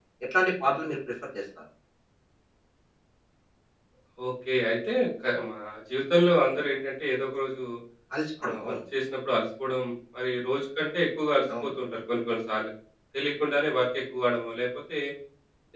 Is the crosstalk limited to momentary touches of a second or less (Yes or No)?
Yes